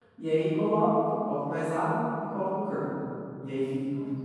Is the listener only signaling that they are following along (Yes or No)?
Yes